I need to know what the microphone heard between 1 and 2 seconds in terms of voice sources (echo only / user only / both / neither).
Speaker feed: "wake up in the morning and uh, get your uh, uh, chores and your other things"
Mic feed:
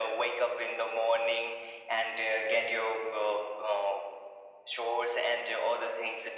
echo only